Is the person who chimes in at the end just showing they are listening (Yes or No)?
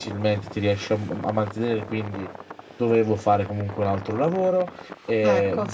Yes